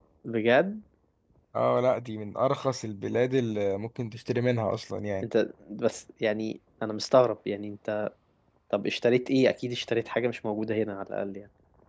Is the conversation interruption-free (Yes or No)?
Yes